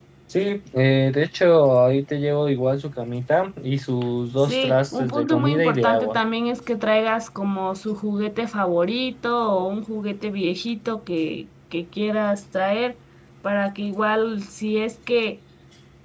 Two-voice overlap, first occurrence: 4.4 s

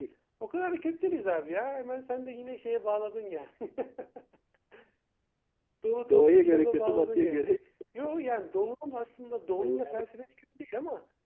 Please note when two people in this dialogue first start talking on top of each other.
6.1 s

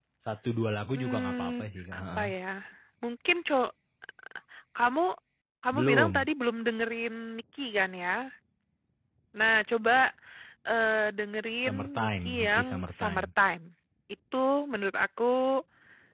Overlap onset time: 0.9 s

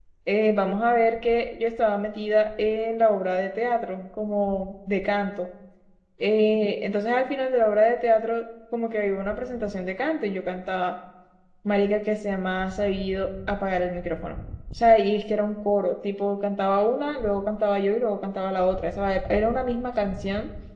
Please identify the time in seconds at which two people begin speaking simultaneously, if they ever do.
none

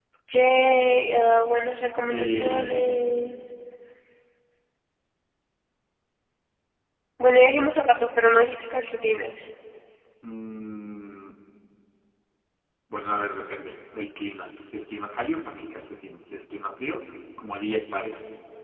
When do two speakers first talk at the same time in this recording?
2.1 s

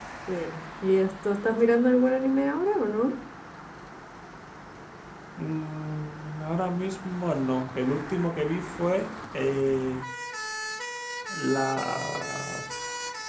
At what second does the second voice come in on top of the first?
none

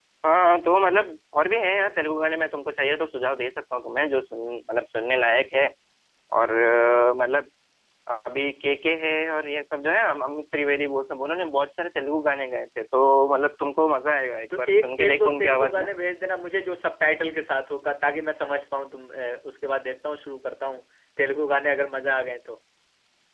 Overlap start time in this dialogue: 14.5 s

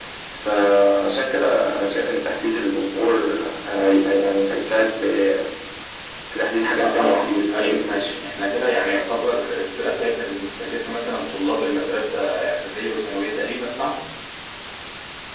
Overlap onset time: 6.6 s

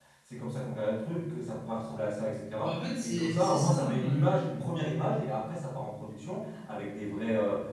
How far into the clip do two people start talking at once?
2.6 s

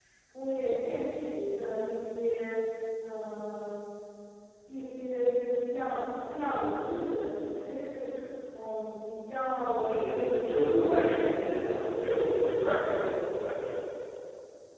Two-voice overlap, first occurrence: 9.9 s

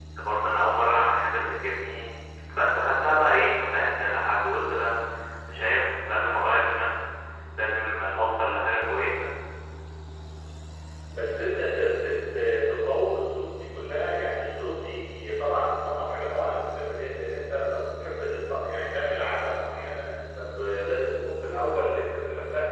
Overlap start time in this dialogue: none

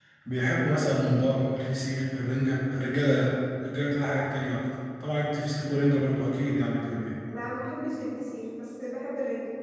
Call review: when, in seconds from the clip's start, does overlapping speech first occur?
none

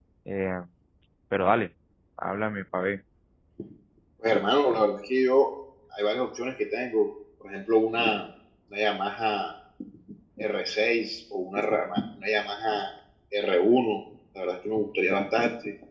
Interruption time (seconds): none

